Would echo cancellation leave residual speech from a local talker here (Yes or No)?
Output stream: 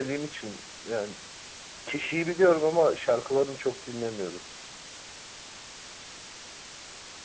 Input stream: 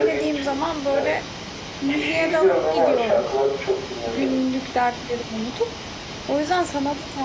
Yes